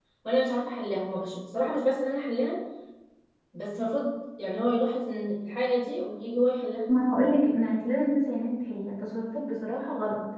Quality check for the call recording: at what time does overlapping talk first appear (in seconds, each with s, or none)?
none